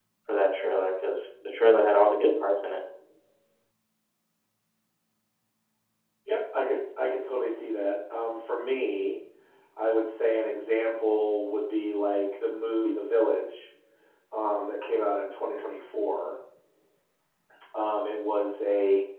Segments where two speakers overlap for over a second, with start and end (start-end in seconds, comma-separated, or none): none